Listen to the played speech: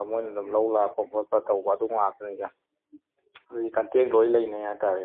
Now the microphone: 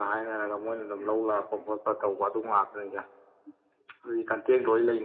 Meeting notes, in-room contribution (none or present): none